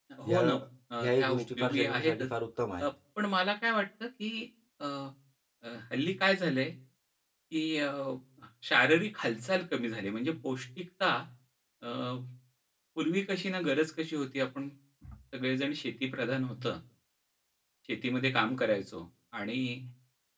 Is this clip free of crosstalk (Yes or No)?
No